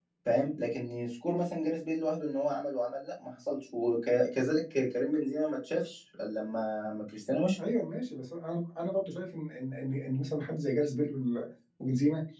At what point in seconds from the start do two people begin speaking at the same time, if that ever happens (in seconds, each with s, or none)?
none